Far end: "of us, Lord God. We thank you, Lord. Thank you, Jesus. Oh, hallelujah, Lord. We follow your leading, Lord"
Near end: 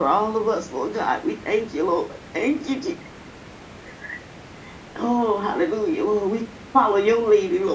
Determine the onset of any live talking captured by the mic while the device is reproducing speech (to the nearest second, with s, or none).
none